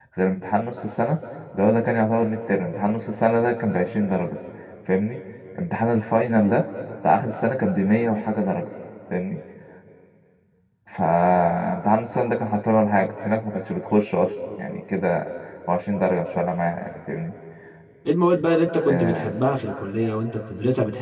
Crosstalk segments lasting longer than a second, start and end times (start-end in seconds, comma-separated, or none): none